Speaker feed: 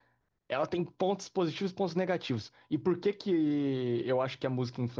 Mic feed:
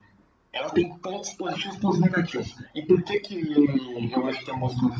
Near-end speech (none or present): none